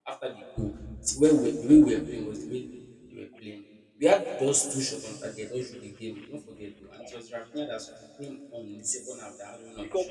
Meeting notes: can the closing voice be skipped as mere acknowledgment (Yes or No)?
No